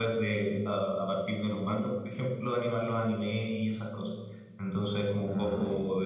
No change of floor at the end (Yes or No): Yes